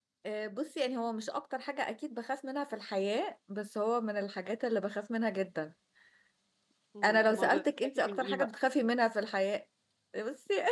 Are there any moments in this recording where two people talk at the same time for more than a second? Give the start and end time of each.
7.0-8.6

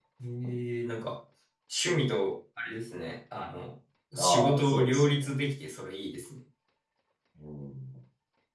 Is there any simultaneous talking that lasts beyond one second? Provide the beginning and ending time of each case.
4.2-5.5

